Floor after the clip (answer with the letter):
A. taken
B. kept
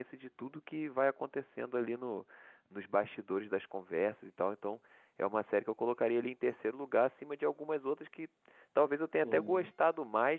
B